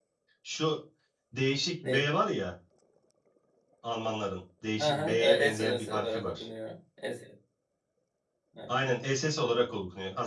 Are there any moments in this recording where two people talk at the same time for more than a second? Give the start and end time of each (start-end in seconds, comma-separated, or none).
4.8-6.5